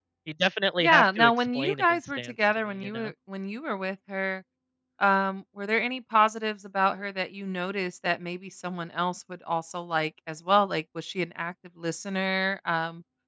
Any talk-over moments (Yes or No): Yes